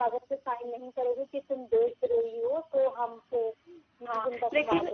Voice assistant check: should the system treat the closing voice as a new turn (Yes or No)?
Yes